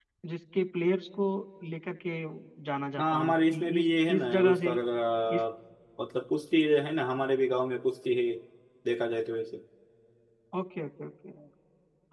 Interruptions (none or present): present